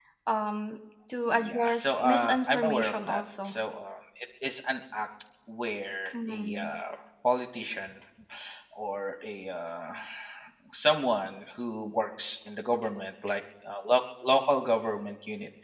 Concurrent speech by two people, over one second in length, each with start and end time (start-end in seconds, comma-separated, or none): 1.3-3.5